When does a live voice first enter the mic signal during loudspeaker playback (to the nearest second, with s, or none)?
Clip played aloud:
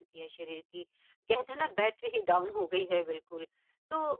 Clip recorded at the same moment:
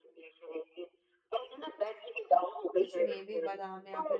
3 s